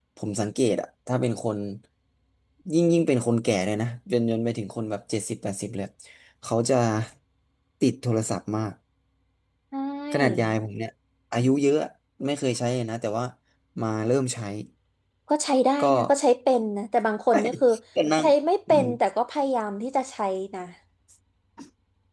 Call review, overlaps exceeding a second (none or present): none